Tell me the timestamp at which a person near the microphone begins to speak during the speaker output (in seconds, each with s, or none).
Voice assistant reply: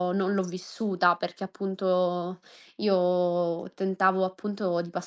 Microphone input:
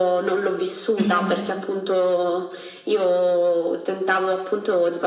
1.0 s